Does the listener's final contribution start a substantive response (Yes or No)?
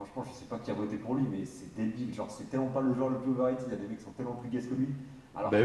No